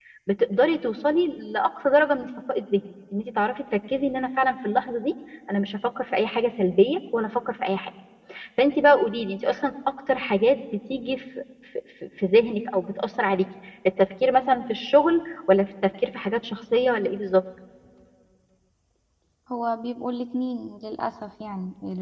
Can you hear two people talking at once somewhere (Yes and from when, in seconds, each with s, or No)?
No